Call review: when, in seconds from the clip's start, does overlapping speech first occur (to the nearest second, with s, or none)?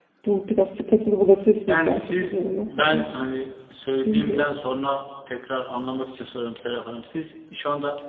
2 s